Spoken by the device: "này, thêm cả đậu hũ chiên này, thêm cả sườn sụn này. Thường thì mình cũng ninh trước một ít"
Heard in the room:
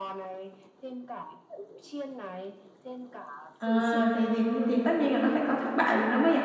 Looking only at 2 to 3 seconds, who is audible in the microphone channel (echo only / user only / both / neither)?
echo only